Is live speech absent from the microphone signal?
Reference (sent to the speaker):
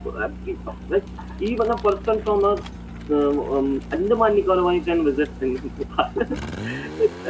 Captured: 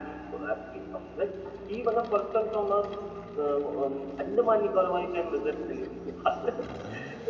Yes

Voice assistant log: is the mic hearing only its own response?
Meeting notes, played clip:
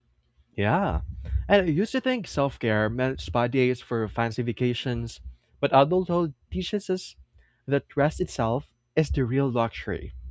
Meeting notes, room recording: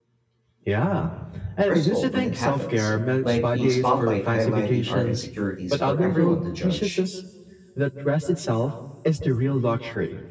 No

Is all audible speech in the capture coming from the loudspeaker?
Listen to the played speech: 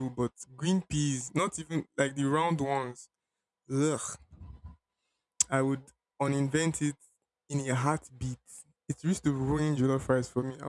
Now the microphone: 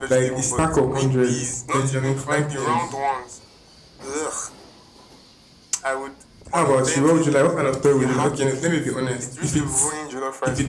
No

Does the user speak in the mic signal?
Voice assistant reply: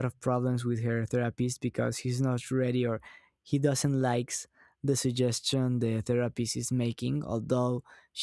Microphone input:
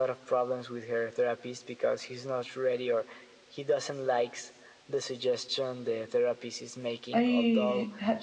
Yes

